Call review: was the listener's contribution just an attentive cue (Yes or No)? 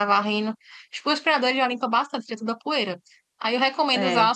Yes